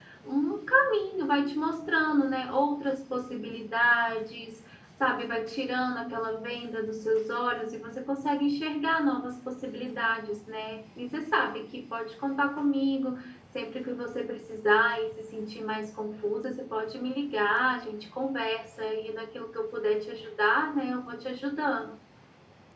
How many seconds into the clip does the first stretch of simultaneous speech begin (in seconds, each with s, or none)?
none